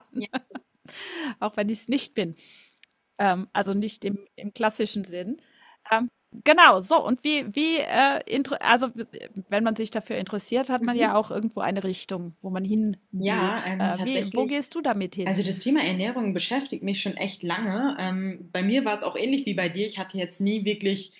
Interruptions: present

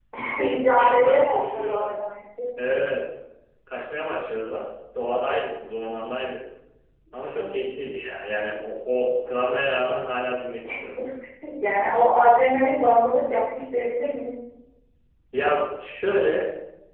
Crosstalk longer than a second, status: present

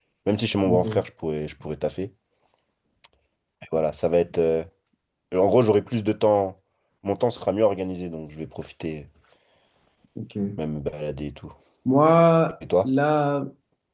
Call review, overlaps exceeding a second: none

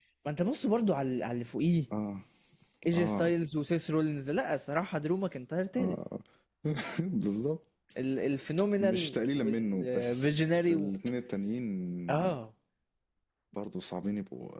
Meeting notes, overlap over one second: present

